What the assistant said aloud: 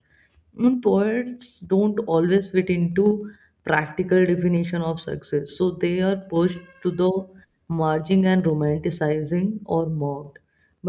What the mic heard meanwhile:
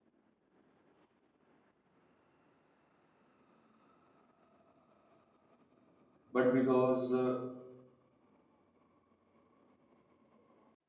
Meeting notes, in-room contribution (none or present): present